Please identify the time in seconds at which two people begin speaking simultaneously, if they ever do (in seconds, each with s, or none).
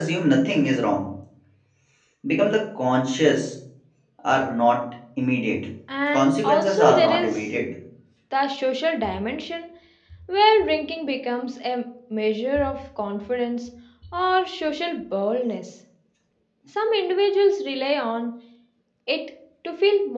6.1 s